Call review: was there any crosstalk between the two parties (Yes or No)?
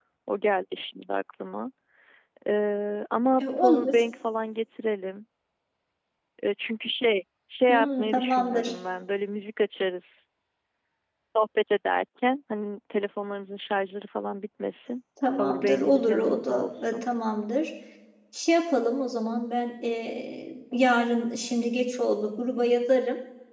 Yes